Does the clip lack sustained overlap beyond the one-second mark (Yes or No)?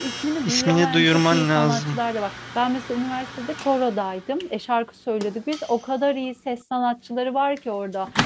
No